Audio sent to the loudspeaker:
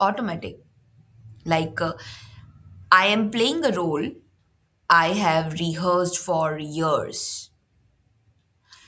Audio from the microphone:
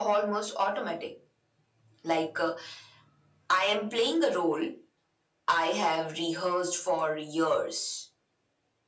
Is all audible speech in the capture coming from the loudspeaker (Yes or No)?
Yes